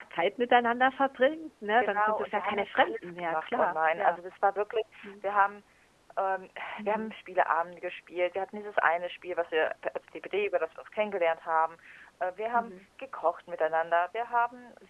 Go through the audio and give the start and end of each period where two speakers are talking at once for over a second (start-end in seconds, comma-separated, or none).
1.8-4.2